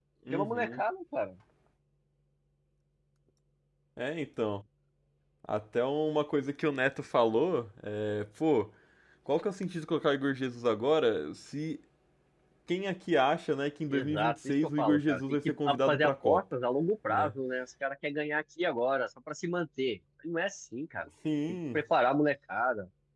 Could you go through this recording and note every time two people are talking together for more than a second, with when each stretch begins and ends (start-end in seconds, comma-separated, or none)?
13.9-16.4